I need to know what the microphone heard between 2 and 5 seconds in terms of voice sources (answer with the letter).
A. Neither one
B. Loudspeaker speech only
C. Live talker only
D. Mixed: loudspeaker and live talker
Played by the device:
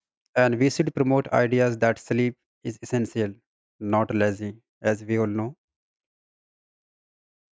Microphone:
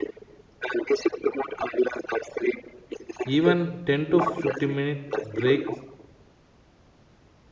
D